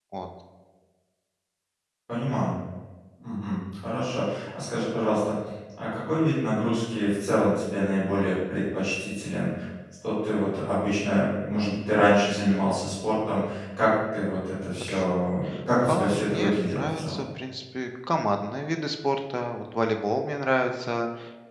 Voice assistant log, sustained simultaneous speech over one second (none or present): present